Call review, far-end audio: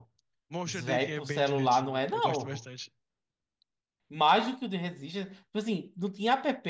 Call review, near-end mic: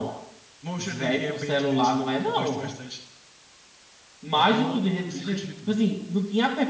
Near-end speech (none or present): present